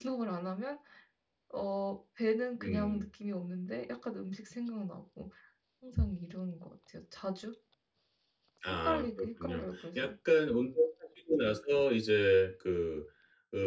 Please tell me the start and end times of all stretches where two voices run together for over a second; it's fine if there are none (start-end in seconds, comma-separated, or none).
8.8-10.1